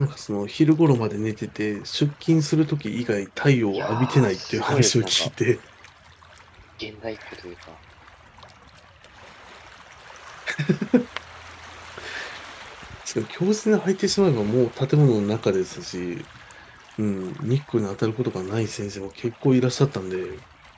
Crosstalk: present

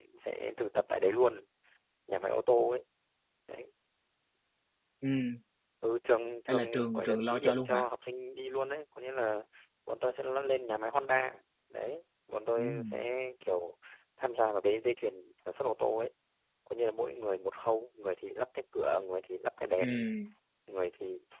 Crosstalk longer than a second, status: present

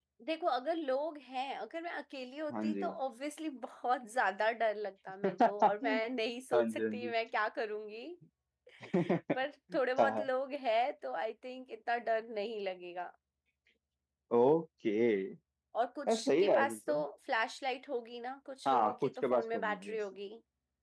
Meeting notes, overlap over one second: present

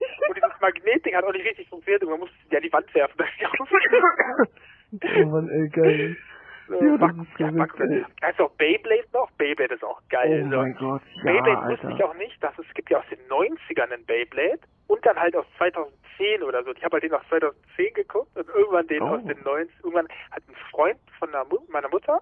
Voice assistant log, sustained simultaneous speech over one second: present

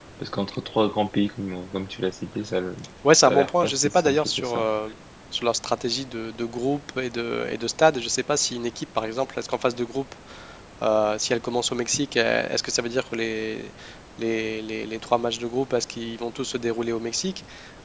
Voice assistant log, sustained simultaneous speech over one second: present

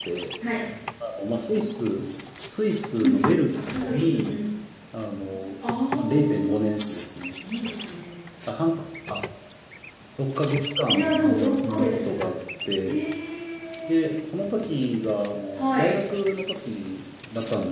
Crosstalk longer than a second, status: present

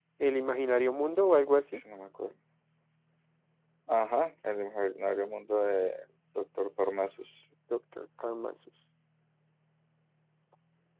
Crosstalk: none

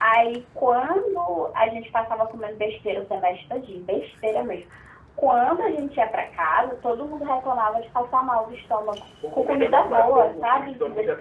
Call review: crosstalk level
present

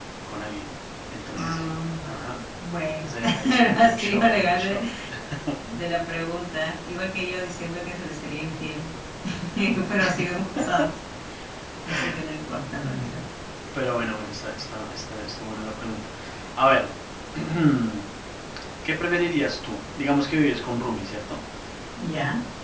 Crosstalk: present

